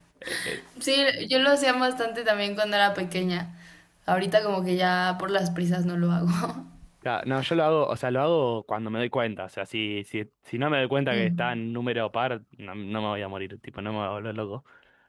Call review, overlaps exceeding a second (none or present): none